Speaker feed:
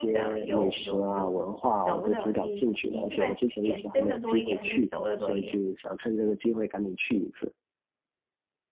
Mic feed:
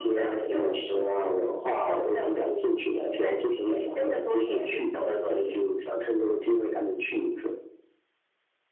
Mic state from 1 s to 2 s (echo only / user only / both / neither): echo only